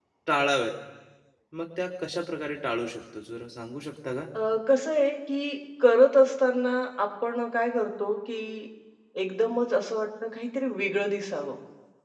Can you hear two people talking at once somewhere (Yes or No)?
No